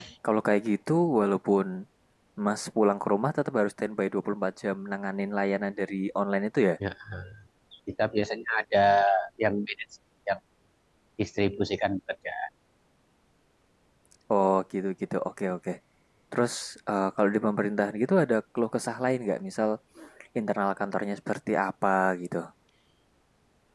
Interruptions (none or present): none